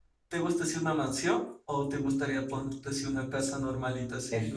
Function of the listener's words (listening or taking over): taking over